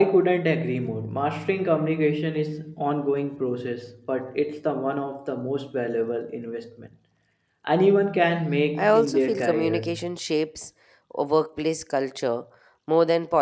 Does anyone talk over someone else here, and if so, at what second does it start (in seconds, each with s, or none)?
8.8 s